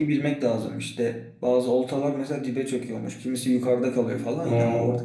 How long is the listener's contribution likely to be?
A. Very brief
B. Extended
A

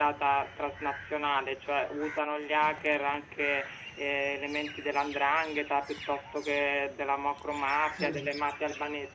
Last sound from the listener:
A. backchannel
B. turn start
A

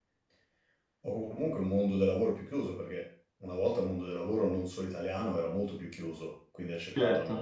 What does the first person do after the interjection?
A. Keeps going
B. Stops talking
A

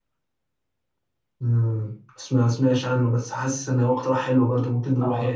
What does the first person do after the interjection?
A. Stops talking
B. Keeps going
A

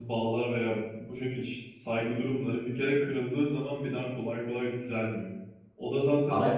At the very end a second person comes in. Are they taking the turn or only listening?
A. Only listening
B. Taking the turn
A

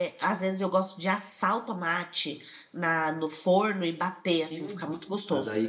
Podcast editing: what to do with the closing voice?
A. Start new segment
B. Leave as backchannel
A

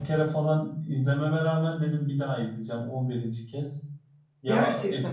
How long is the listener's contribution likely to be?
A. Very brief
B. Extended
A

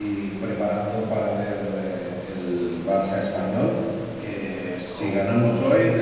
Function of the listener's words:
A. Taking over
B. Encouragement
B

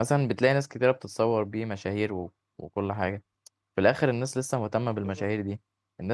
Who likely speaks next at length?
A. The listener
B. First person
B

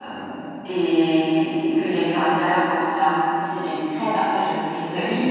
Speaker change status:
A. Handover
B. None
A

